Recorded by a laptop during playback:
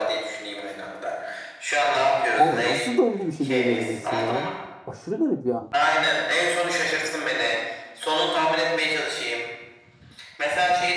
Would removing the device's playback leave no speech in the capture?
No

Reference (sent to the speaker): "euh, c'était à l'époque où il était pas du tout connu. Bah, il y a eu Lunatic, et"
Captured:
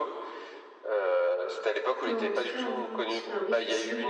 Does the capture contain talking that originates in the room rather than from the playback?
Yes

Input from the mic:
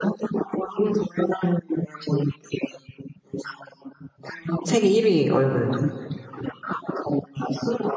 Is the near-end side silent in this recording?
No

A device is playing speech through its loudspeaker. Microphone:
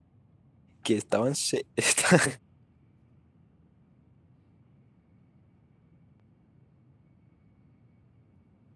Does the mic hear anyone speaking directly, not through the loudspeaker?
Yes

